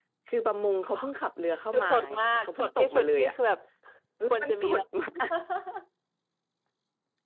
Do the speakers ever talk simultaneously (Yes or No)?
Yes